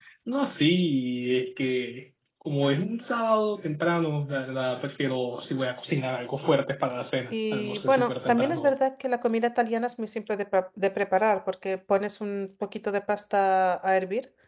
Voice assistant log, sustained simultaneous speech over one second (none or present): present